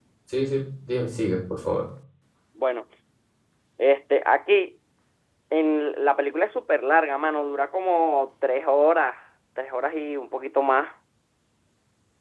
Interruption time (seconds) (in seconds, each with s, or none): none